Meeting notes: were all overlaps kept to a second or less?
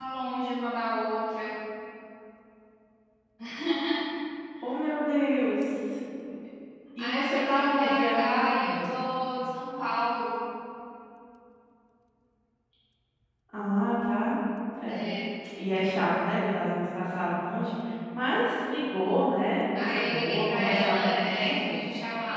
No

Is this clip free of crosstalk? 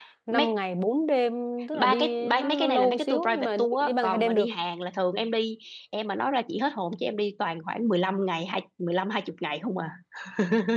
No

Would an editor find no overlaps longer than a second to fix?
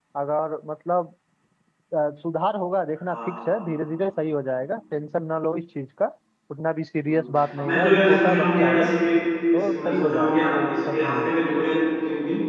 No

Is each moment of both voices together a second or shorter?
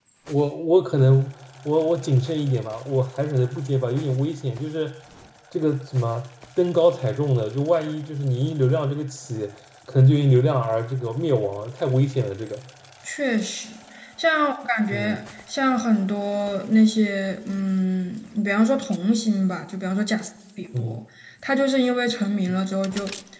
Yes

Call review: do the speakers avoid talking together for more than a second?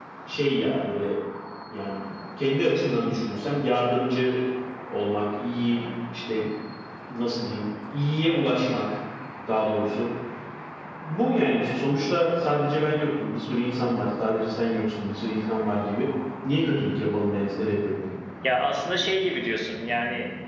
Yes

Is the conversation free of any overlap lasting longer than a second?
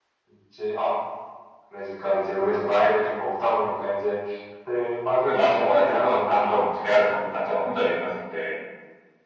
No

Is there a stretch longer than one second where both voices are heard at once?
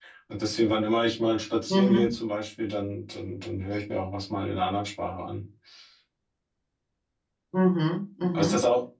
No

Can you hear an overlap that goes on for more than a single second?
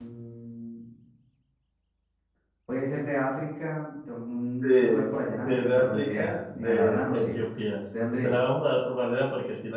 Yes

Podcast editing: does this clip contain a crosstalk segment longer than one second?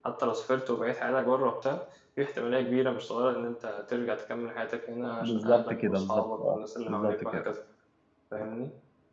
Yes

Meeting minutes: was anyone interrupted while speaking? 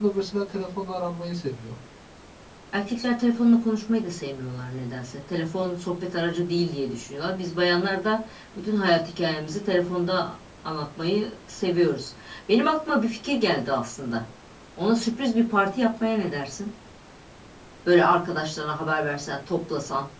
No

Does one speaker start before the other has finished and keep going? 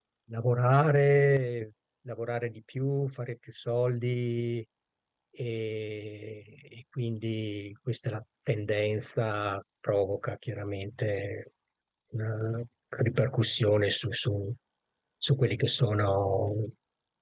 No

